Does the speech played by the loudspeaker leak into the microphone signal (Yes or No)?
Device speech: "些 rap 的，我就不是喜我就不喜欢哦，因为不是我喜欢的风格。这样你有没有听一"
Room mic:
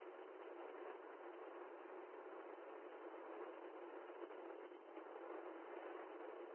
No